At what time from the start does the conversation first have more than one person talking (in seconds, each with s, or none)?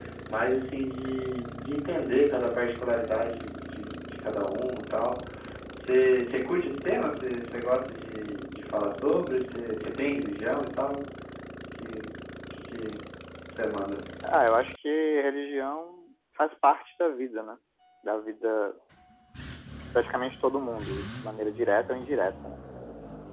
none